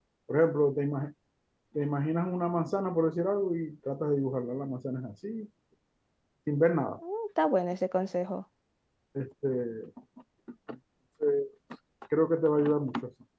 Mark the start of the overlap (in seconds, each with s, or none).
none